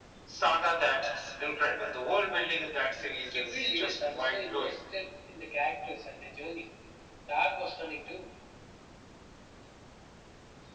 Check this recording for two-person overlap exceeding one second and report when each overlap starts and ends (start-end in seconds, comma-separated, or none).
3.3-4.8